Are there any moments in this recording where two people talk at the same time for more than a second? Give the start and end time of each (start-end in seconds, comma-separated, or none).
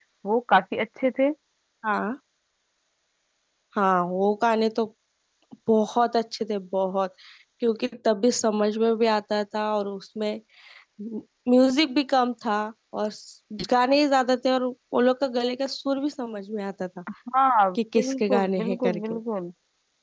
17.8-19.2